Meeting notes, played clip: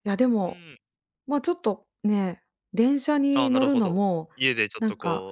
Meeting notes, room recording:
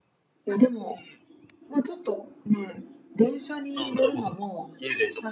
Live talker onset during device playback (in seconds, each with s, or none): none